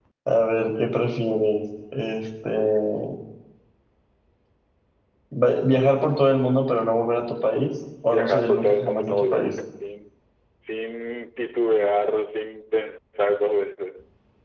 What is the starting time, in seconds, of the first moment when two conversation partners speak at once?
8 s

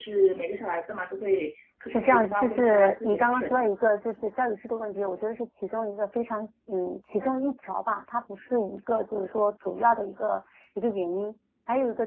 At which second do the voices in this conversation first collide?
2 s

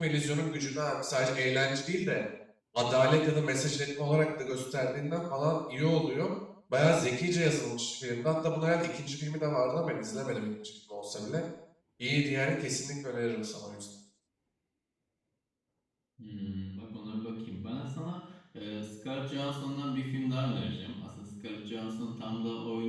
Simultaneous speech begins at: none

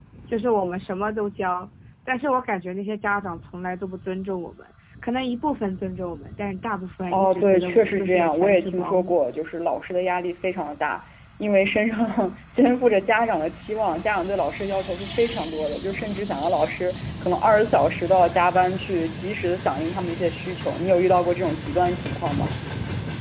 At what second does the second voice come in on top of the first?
7 s

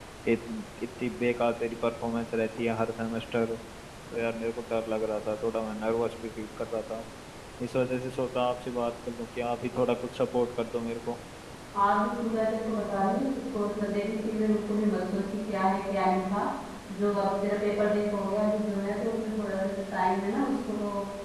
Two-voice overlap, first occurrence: none

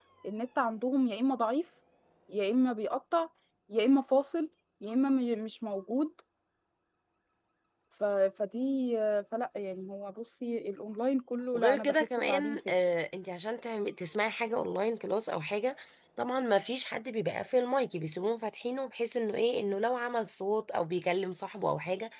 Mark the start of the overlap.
12 s

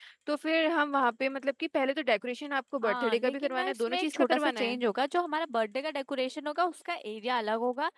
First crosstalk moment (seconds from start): 3 s

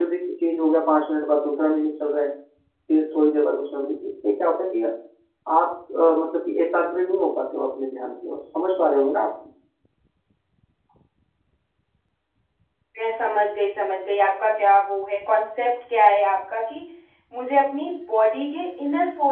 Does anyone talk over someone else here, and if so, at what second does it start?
none

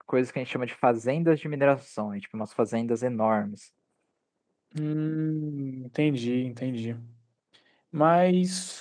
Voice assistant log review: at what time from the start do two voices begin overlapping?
none

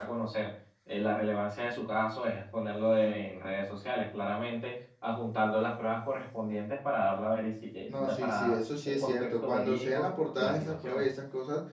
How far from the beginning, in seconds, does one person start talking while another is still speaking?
8 s

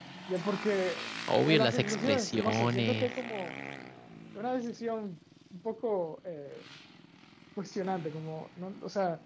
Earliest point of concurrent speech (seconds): 1 s

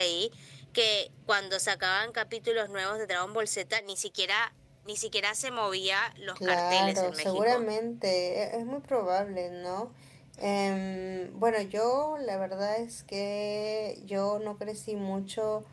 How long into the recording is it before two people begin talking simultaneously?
6 s

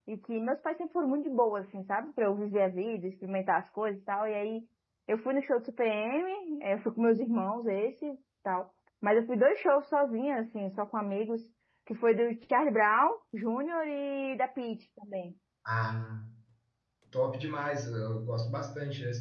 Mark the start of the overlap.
none

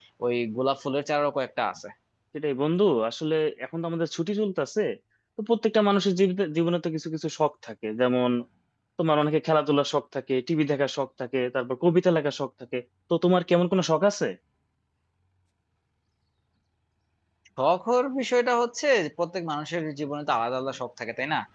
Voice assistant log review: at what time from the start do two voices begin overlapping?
none

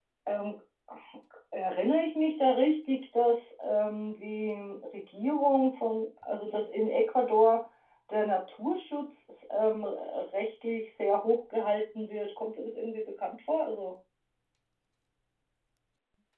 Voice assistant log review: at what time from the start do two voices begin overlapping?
none

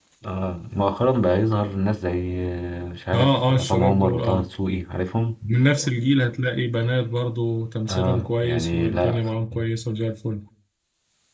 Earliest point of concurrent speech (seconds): 3 s

